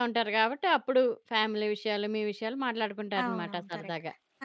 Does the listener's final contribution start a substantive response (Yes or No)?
Yes